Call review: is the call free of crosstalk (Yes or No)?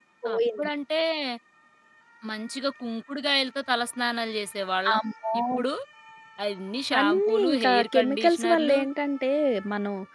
No